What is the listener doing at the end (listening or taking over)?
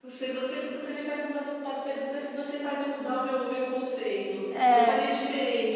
listening